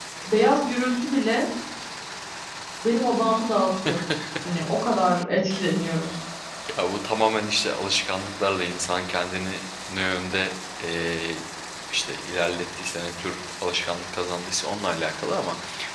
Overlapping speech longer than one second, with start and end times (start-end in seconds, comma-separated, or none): none